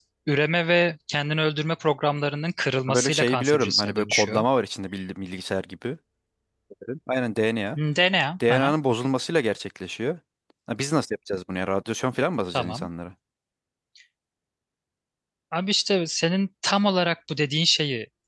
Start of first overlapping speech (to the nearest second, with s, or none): 3 s